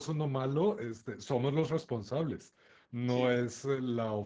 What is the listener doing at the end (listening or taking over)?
listening